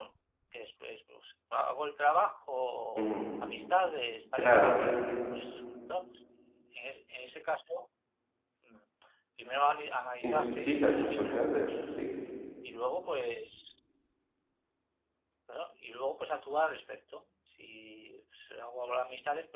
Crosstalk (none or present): present